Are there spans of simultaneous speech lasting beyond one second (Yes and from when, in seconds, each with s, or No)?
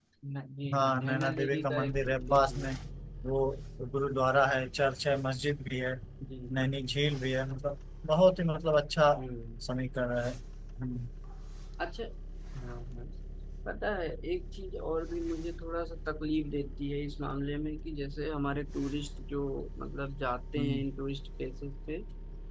Yes, from 0.7 s